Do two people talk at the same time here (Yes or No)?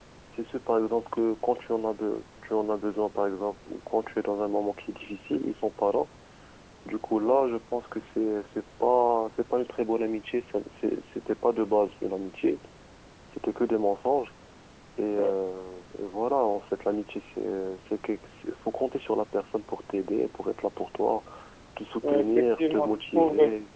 Yes